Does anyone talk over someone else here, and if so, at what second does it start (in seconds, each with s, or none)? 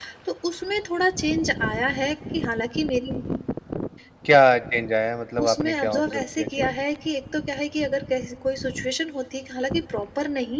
5.4 s